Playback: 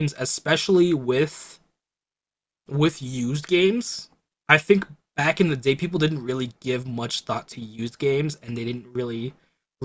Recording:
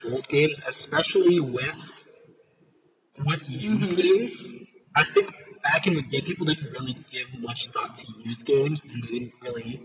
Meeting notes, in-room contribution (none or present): present